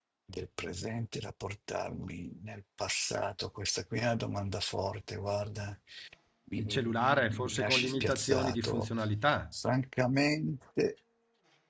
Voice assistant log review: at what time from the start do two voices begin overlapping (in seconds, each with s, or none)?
6.6 s